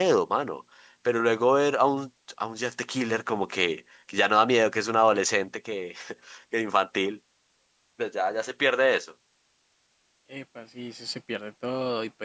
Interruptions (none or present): none